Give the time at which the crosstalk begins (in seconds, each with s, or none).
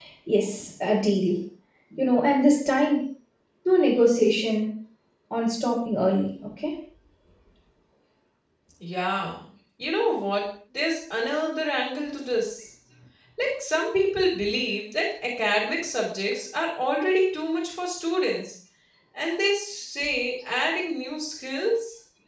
none